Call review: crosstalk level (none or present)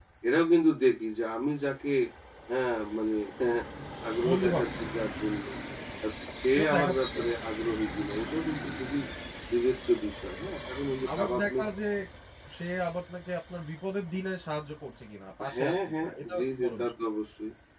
present